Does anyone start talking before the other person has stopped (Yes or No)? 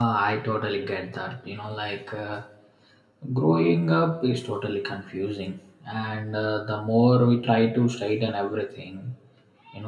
No